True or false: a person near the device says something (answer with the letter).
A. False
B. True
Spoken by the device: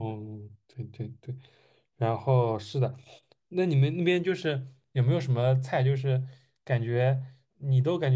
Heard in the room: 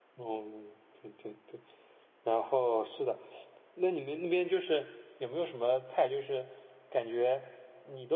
A